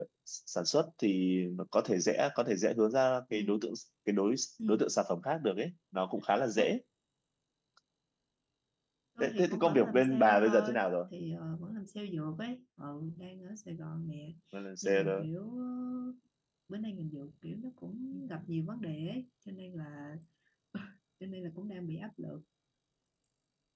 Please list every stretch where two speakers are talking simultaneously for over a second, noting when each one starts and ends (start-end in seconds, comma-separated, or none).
9.2-10.8